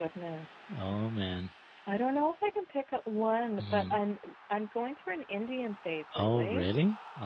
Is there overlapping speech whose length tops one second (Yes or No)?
No